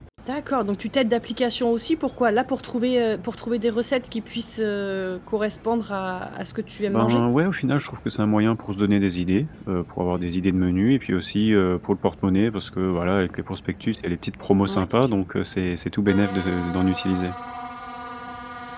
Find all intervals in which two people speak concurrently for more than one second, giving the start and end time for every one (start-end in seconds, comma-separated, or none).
none